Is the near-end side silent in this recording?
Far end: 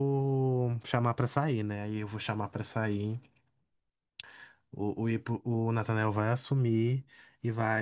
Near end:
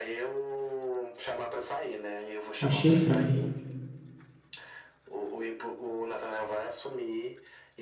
No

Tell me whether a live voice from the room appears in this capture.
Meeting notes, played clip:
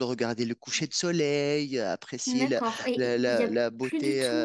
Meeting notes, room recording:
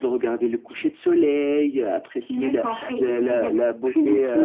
No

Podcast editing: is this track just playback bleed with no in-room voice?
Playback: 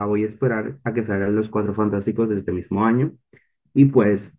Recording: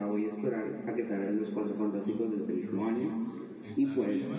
No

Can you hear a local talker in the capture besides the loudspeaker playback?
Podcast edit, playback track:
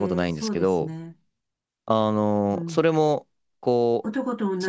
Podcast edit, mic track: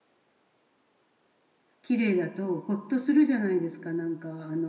Yes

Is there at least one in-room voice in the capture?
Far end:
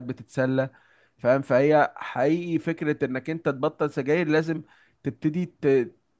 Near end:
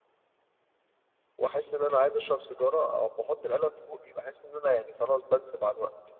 Yes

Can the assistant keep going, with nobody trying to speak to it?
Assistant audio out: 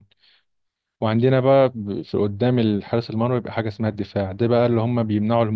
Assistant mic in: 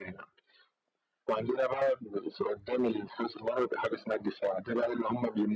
Yes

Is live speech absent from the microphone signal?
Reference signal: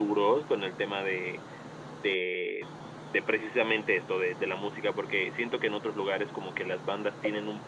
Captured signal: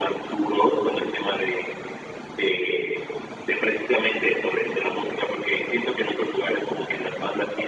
Yes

